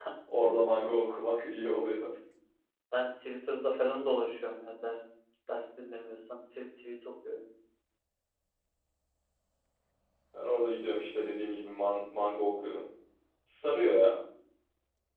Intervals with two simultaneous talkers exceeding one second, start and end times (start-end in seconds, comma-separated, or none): none